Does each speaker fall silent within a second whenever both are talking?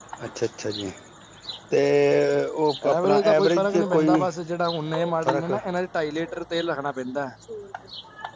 No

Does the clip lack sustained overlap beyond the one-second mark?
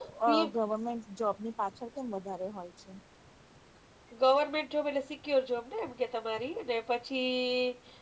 Yes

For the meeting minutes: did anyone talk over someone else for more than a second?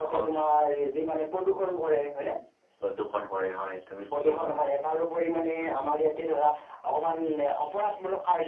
No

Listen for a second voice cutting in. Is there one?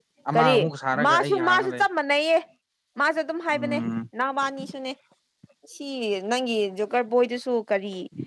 Yes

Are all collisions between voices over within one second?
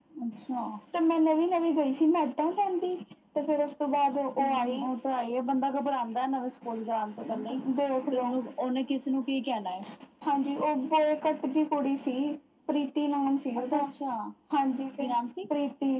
Yes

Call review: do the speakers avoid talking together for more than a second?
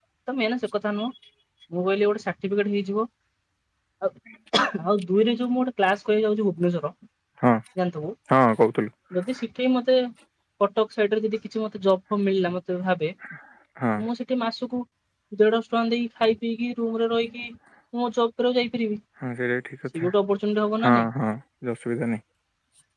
Yes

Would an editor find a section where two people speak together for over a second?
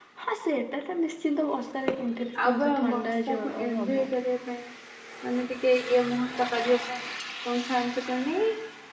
Yes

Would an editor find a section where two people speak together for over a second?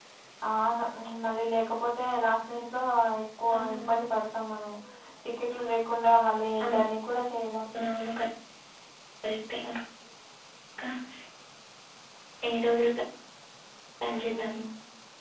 No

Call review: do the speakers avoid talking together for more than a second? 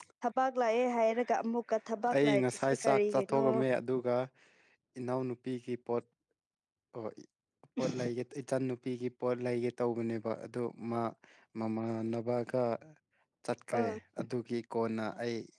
No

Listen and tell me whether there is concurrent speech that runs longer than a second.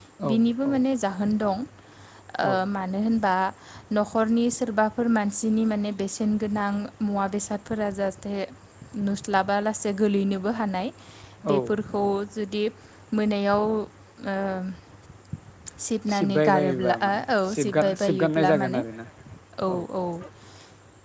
Yes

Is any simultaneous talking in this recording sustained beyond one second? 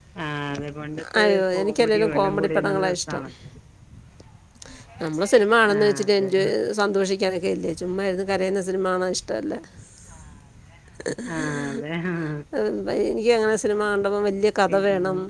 Yes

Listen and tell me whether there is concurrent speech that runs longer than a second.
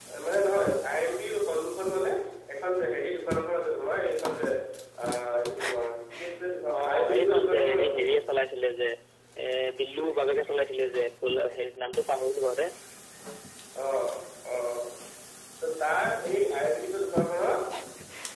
Yes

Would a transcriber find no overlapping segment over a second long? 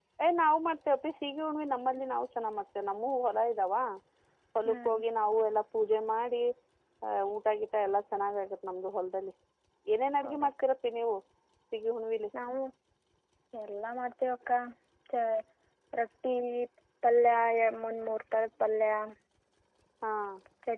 Yes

